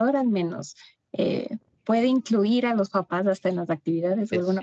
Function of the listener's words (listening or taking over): listening